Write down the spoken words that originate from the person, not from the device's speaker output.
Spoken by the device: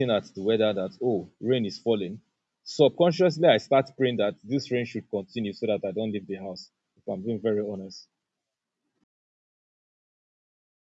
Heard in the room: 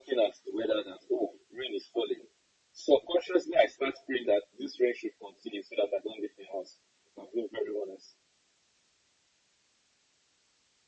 none

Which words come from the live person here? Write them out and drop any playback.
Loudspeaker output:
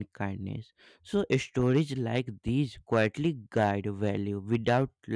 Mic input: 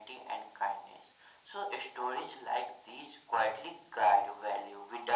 none

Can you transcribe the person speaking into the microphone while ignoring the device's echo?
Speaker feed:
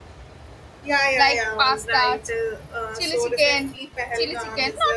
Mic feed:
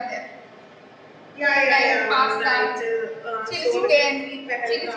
So,

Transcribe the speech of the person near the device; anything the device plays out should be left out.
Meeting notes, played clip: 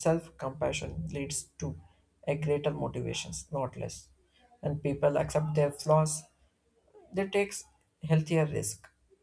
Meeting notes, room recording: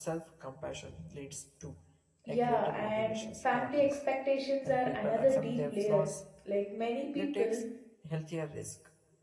Yeah, and family expectations are another deep layer. Like many people

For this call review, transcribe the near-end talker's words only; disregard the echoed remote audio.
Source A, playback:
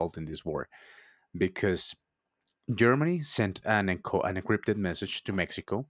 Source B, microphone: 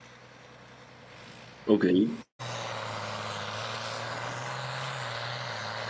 okay

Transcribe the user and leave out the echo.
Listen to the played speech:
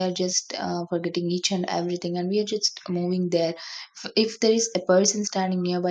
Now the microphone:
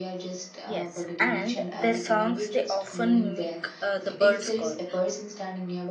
Yes, and their songs they often mimic uh, the bird's call,

